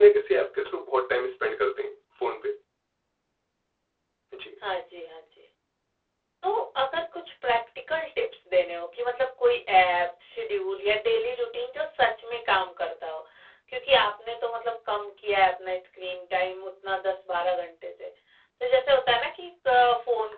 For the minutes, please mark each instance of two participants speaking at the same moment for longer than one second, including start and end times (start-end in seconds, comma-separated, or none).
none